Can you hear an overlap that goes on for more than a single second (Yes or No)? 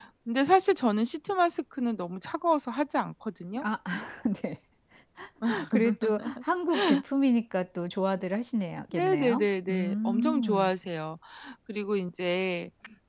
Yes